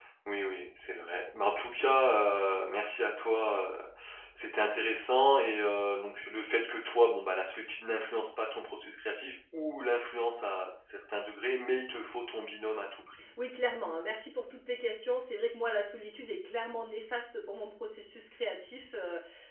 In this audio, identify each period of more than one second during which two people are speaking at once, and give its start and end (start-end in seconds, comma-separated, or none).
none